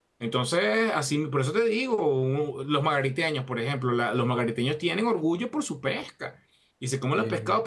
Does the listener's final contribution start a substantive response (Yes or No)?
No